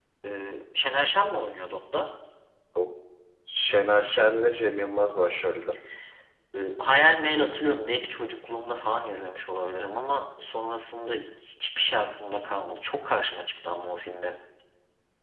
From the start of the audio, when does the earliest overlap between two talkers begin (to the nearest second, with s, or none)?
none